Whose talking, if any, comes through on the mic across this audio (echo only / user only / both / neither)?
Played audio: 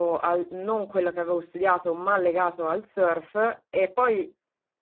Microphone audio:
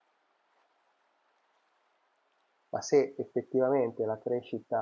user only